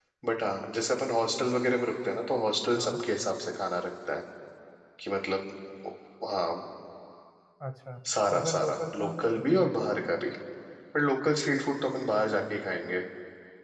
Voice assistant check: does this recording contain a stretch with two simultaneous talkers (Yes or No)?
Yes